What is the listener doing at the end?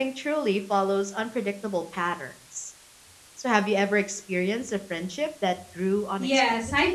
taking over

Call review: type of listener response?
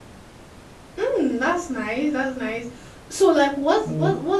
listening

